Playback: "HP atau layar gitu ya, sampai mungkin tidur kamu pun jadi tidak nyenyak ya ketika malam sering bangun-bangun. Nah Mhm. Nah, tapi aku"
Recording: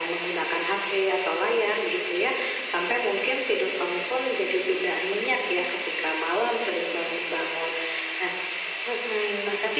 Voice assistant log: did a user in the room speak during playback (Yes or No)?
No